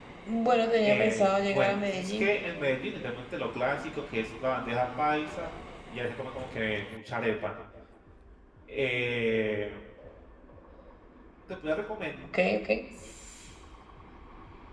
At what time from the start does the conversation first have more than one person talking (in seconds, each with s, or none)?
0.8 s